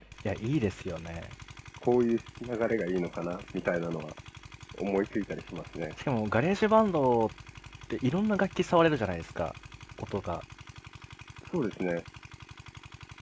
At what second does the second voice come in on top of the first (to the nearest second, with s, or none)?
none